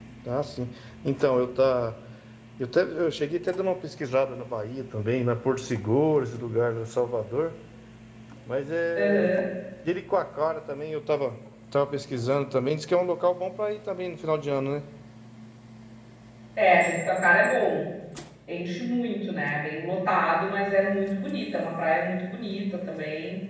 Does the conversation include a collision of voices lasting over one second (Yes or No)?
No